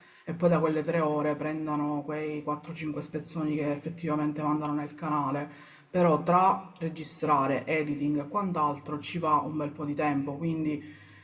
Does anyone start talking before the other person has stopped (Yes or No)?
No